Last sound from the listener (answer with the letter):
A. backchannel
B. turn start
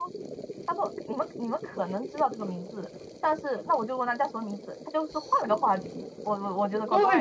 B